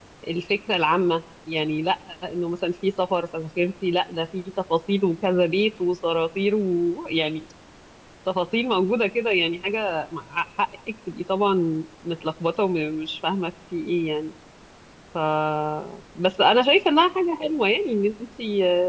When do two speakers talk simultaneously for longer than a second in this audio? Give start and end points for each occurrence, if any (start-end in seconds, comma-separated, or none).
none